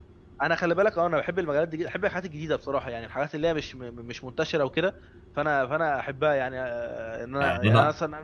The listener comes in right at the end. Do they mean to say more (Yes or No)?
No